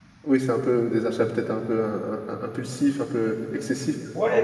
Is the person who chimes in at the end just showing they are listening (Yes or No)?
No